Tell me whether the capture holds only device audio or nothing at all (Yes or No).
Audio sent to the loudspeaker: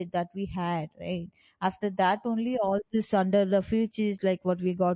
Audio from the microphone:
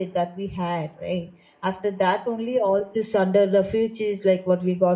Yes